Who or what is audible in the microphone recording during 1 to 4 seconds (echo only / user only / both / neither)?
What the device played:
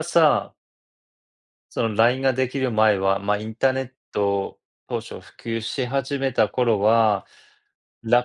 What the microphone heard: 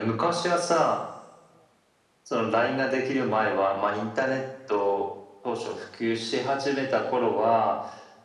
echo only